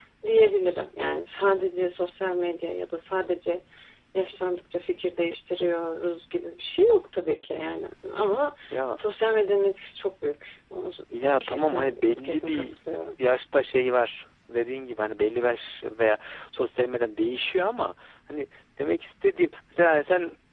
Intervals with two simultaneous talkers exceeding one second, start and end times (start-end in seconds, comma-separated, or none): 11.4-12.7